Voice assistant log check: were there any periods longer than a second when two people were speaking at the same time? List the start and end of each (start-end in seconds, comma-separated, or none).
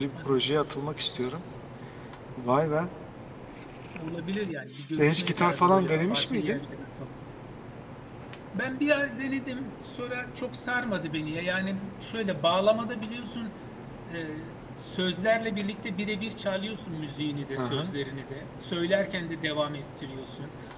4.7-6.6